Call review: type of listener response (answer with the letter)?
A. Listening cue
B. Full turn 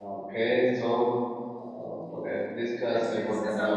B